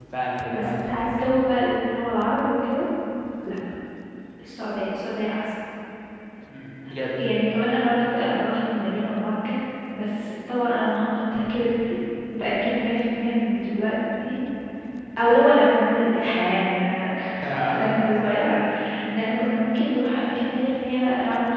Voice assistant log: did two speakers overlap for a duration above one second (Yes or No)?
No